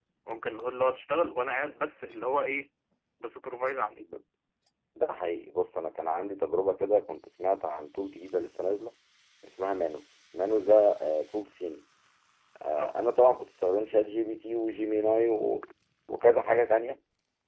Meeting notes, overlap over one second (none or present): none